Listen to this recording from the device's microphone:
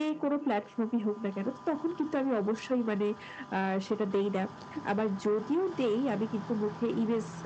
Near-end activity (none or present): none